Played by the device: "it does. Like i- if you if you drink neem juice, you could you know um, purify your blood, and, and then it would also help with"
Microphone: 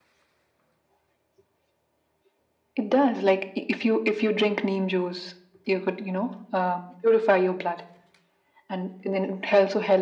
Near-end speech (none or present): none